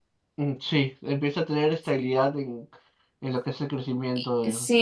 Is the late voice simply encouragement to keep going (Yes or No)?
No